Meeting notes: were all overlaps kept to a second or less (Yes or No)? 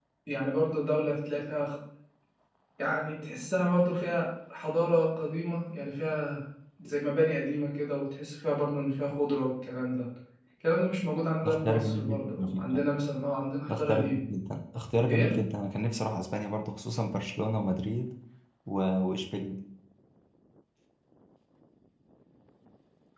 No